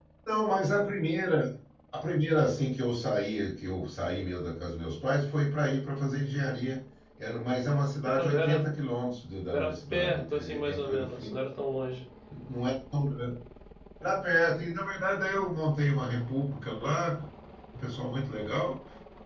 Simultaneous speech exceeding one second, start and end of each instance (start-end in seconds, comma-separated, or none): 9.5-11.4